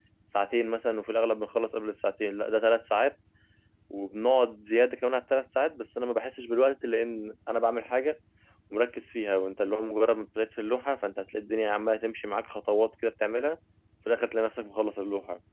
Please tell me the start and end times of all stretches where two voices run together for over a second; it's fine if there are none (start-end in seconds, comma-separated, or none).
none